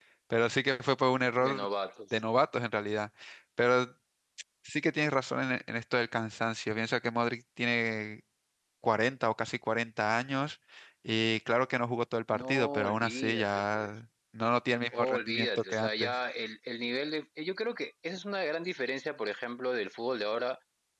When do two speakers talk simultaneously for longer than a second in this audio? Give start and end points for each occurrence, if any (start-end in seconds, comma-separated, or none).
12.3-13.9, 14.9-16.2